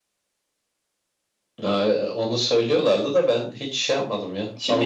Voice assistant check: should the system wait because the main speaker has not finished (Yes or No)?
No